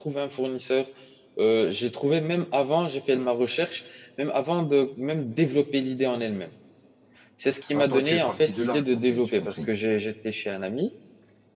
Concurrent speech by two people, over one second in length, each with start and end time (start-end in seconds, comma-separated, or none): 7.7-9.7